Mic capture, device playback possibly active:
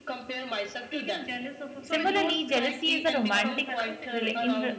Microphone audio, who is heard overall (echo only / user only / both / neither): both